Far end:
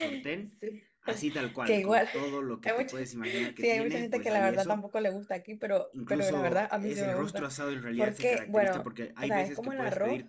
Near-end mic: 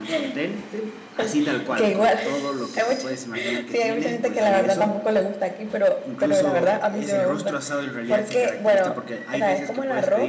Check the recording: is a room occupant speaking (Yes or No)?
No